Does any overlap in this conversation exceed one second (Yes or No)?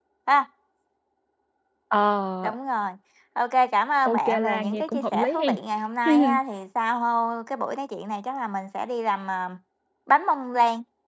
Yes